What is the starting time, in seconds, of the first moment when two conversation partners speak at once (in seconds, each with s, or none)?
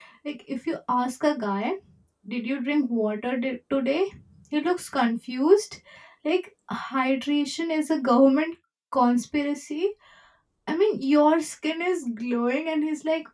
none